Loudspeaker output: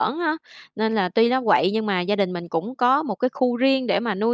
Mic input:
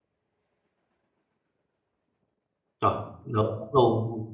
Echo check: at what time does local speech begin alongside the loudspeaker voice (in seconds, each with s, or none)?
2.8 s